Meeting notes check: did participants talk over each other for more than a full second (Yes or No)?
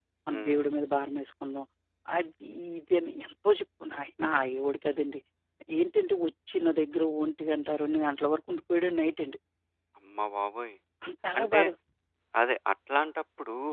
No